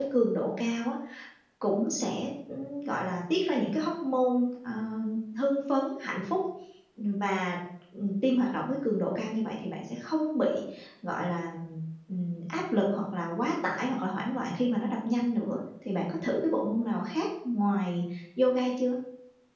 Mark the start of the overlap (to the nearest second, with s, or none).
none